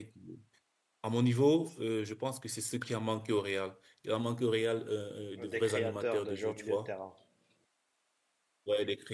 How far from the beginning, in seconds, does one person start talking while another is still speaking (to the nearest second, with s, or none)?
5 s